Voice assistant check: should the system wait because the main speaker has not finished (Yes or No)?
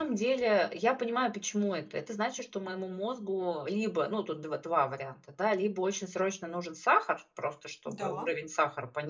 Yes